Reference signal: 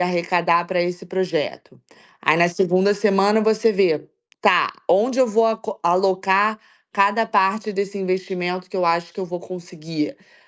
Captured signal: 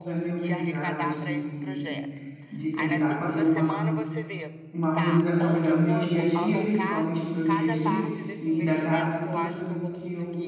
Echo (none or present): present